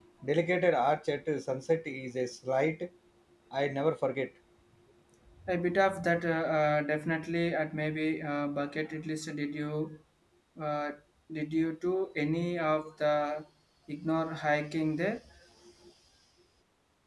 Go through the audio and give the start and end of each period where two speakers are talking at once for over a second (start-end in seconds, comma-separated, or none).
none